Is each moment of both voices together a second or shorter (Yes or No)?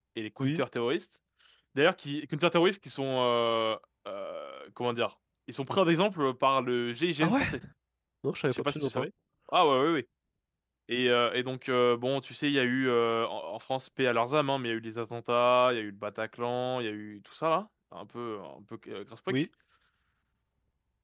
Yes